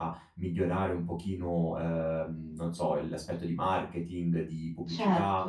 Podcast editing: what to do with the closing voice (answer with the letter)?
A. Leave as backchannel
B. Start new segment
A